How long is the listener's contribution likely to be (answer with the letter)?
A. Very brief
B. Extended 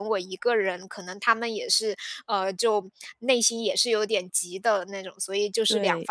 A